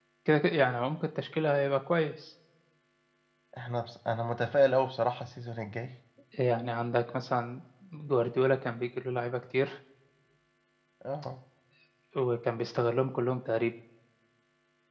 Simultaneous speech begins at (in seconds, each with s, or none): none